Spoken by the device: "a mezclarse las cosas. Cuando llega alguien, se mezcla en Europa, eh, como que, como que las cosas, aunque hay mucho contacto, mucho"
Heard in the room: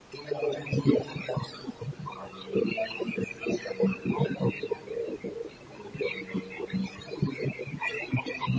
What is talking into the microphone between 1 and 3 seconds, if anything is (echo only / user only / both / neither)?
echo only